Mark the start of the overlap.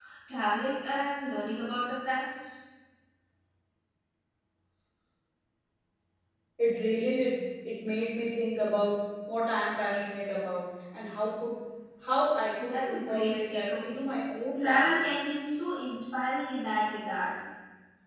12.6 s

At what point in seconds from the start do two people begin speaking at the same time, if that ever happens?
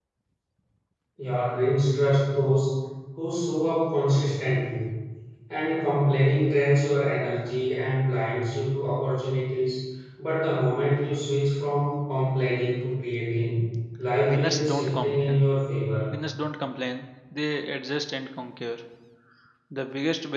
14.2 s

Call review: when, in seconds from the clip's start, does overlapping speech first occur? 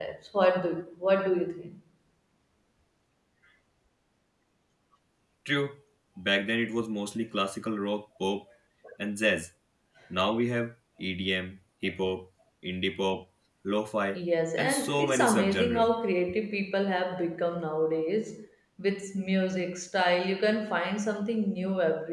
14.6 s

